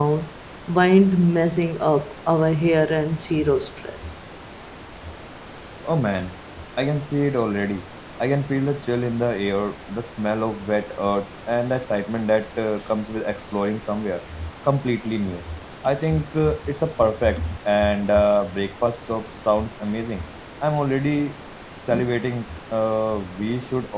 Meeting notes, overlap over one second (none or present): none